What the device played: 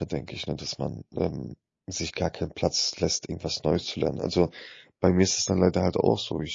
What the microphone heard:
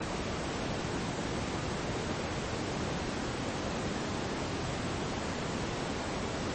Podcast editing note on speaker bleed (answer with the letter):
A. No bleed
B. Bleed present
A